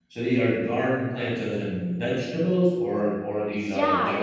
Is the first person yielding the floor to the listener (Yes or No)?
Yes